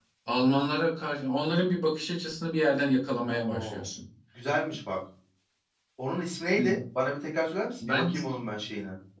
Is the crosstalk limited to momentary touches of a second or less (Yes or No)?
Yes